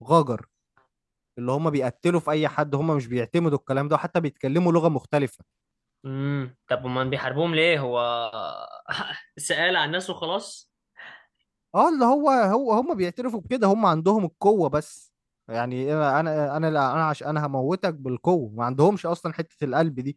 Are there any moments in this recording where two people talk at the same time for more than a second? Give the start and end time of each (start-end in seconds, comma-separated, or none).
none